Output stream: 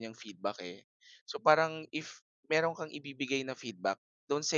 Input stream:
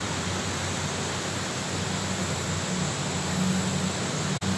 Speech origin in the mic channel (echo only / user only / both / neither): neither